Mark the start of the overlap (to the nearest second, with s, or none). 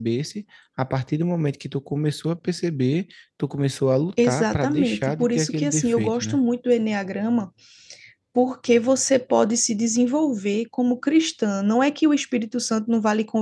4 s